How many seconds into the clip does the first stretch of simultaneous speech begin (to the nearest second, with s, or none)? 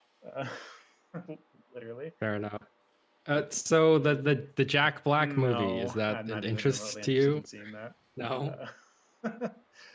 5 s